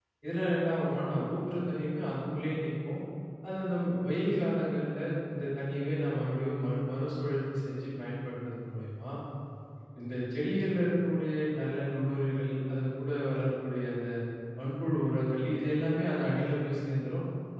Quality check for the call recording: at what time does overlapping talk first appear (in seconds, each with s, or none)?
none